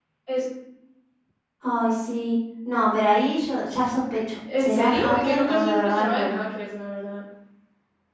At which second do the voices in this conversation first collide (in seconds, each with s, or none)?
4.5 s